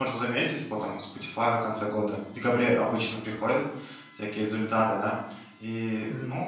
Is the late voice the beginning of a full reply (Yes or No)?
No